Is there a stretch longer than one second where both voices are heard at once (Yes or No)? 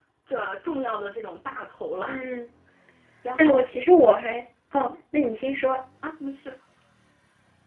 No